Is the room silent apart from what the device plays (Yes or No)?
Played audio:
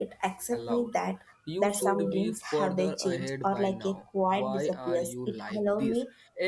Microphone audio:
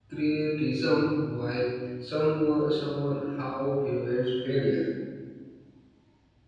No